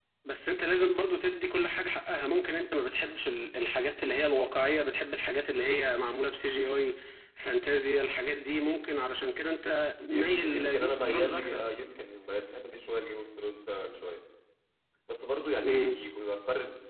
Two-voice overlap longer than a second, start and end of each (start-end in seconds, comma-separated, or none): 10.1-11.6